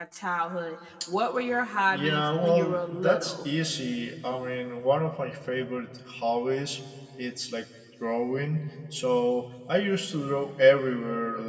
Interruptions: present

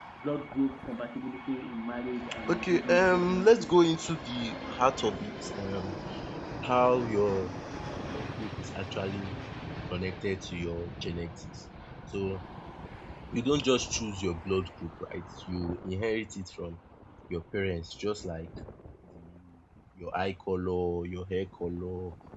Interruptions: present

